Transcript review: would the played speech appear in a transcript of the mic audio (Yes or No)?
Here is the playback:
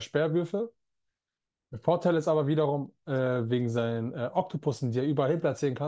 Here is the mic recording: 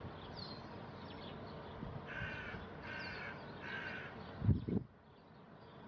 No